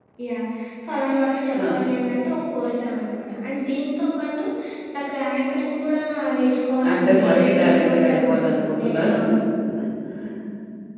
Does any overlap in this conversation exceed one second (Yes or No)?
Yes